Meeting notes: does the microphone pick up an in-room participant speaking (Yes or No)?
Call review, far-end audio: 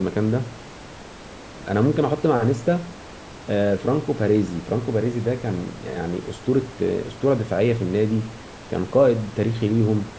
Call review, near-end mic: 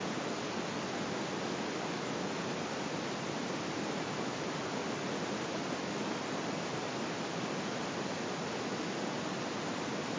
No